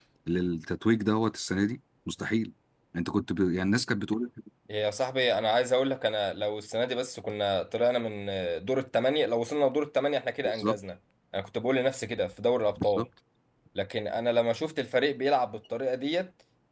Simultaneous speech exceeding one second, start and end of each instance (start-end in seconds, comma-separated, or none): none